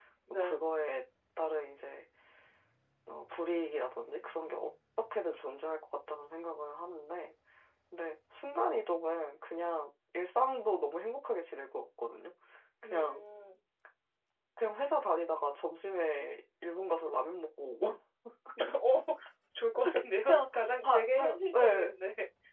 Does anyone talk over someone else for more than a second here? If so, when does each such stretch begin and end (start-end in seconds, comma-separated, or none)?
20.3-21.9